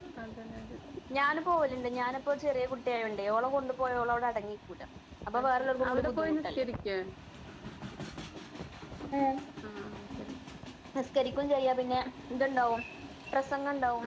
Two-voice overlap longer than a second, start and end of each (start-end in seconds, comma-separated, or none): 5.4-6.7